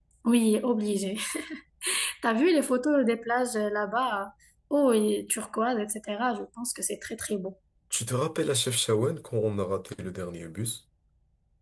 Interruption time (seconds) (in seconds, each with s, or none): none